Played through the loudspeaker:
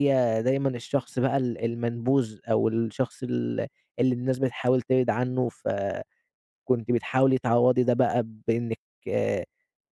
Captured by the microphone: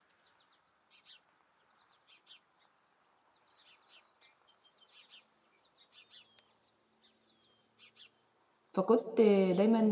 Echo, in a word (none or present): none